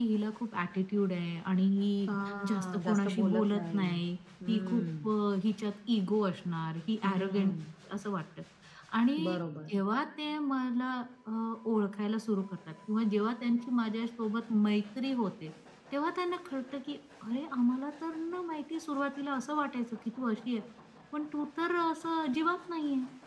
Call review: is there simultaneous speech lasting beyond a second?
Yes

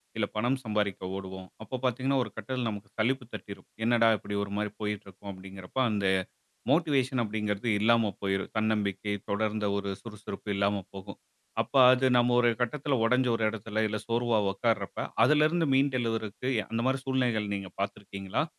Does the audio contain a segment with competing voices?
No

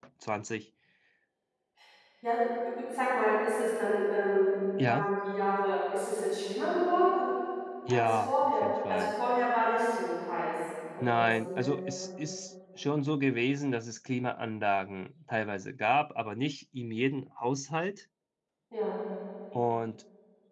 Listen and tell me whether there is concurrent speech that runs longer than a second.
Yes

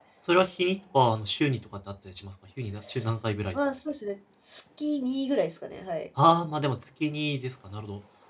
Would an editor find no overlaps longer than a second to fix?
Yes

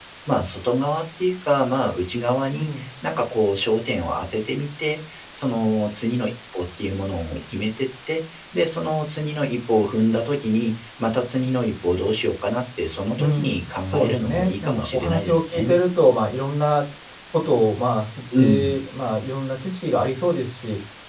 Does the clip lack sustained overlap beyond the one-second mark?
No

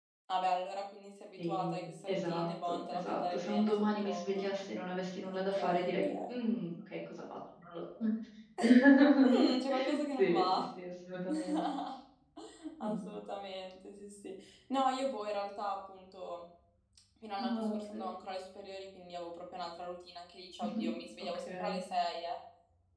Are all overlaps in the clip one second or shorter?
No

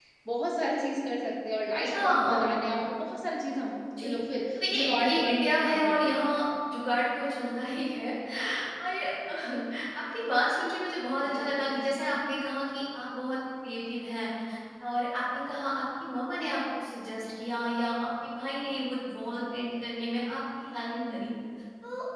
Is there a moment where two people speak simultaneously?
Yes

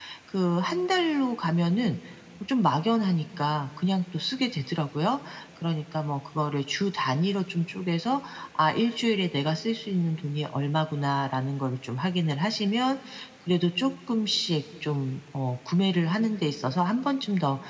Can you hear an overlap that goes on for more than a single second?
No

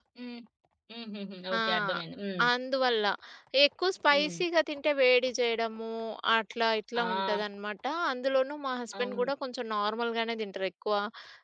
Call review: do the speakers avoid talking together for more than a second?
Yes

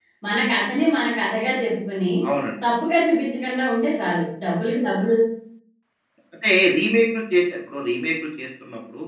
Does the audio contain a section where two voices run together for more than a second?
No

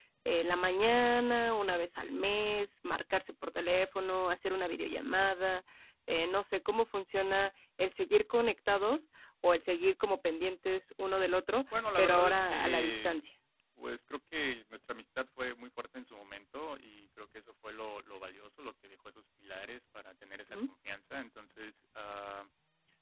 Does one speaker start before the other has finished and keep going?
Yes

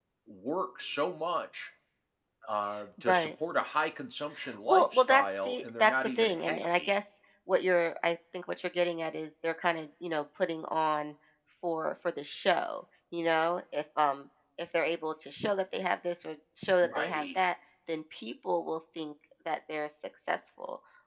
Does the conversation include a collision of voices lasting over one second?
Yes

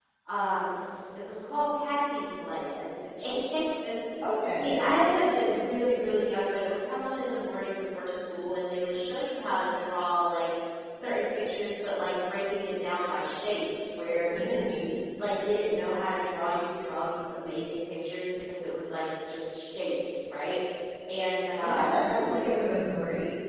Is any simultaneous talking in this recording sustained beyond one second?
No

